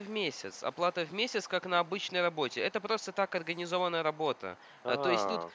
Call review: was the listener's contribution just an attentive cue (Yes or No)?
Yes